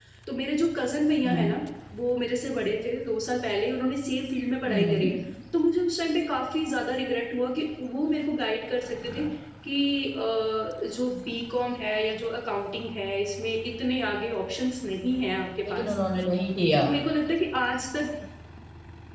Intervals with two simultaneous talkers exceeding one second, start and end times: none

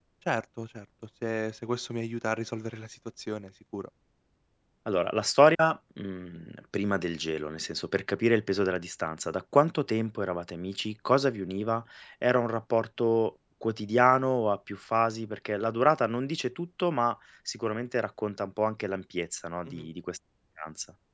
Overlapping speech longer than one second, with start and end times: none

